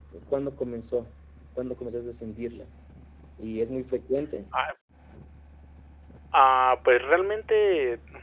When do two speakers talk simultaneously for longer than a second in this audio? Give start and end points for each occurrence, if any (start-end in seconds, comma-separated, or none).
none